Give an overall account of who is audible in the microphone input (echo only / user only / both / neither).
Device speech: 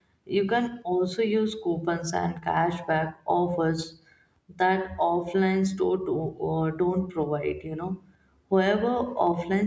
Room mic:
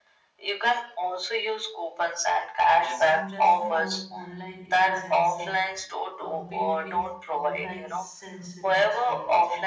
both